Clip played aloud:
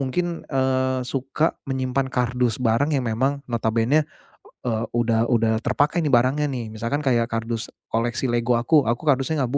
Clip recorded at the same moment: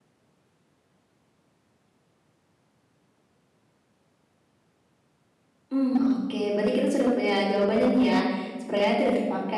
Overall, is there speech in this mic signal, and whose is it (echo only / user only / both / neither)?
user only